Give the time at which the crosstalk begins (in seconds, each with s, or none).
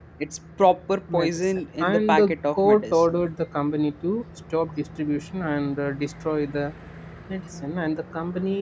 1.2 s